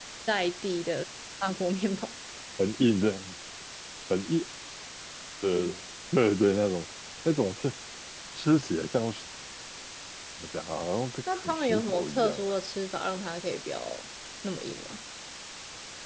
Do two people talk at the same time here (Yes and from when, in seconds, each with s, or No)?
Yes, from 11.3 s